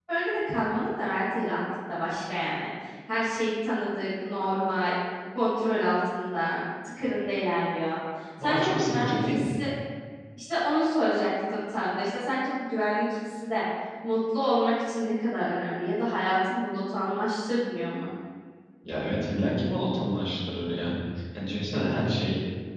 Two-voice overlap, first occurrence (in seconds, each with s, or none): 8.4 s